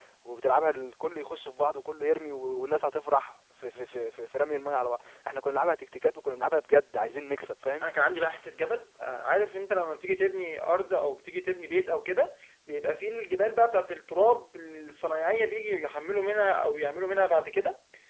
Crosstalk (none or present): none